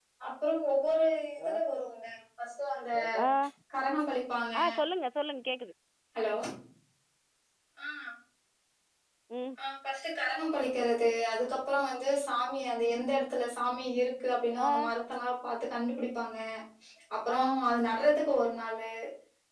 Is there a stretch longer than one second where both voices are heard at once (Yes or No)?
No